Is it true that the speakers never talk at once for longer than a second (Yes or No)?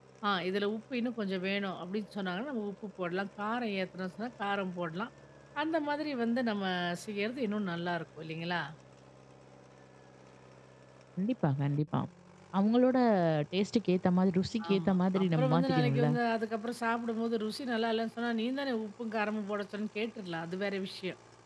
No